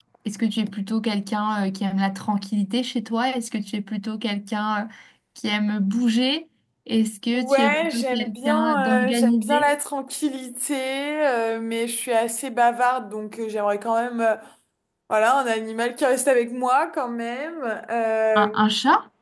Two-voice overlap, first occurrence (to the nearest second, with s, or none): 7 s